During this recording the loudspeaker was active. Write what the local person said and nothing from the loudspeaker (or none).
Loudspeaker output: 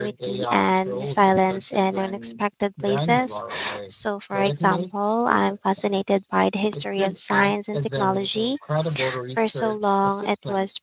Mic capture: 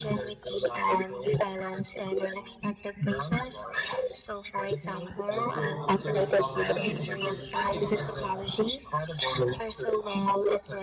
I feel a surge of energy just thinking about it.